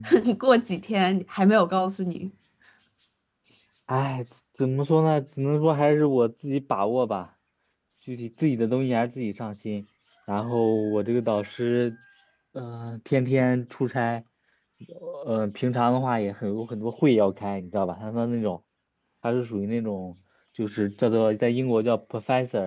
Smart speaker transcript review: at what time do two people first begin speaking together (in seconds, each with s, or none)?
none